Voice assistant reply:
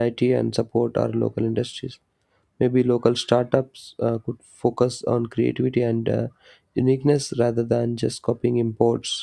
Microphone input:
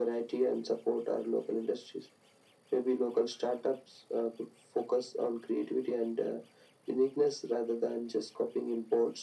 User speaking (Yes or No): No